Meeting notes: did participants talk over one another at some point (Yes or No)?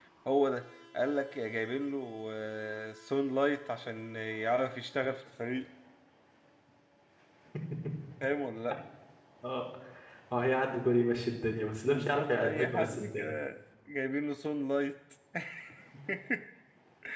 Yes